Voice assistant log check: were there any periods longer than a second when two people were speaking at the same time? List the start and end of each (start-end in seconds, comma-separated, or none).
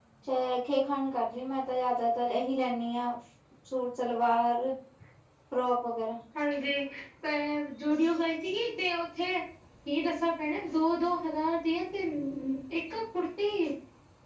none